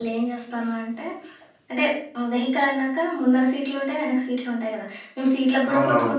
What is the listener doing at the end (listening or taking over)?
listening